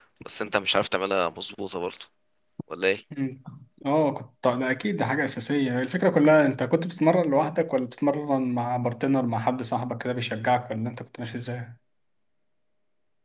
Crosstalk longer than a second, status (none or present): none